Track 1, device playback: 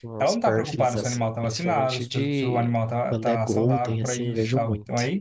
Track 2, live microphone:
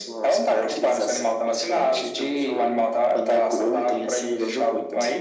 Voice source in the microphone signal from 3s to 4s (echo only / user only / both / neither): echo only